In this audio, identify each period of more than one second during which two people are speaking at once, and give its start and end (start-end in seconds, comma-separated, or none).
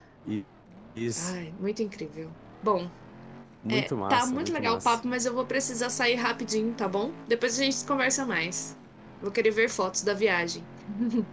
3.7-5.0